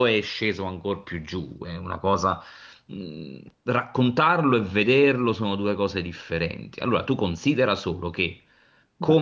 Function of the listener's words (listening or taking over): listening